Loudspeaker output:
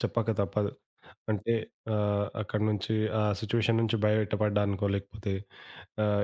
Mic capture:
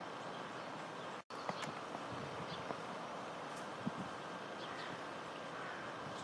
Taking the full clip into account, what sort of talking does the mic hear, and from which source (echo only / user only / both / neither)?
neither